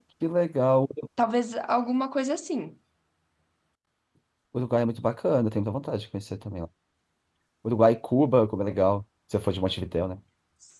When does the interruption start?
none

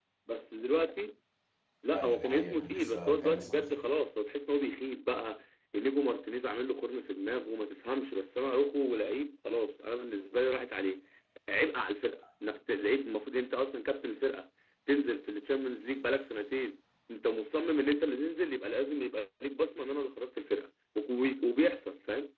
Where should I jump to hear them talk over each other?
2 s

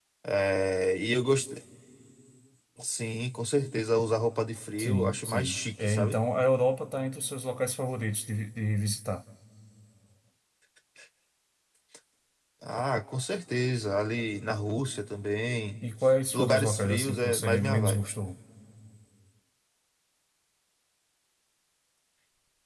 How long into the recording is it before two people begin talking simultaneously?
5 s

